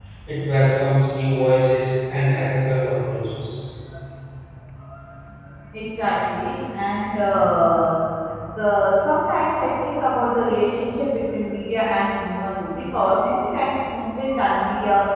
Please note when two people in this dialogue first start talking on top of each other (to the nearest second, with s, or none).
none